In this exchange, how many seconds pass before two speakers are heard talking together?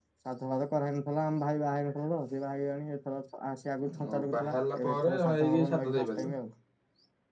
4.1 s

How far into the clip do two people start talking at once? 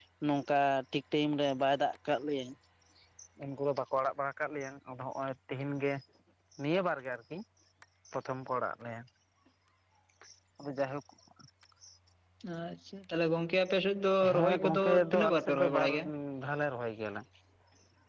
14.2 s

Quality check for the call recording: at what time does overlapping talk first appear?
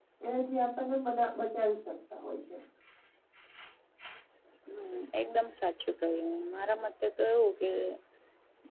none

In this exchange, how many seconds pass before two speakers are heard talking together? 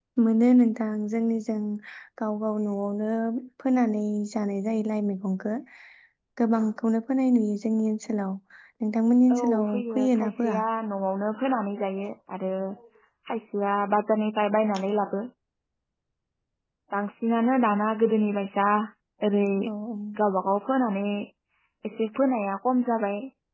9.3 s

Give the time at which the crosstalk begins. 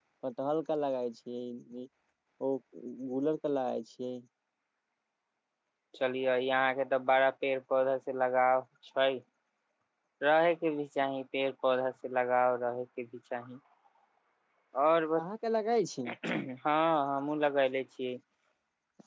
none

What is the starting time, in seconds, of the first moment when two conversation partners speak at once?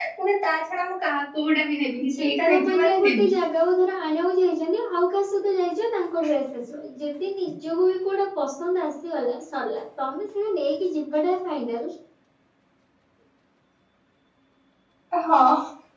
2.0 s

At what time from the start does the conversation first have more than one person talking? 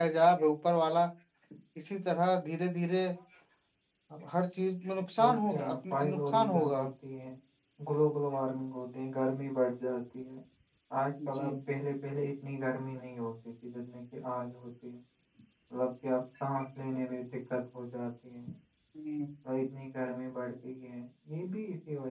5.2 s

